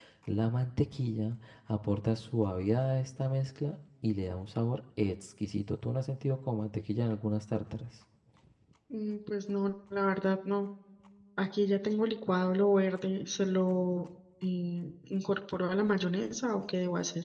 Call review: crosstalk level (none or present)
none